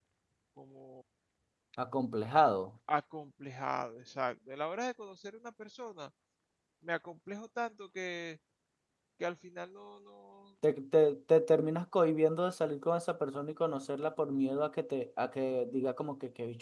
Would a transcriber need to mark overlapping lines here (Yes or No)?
No